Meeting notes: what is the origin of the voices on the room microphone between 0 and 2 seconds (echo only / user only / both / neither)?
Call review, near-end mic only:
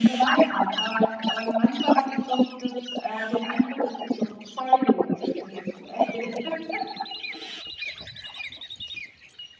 echo only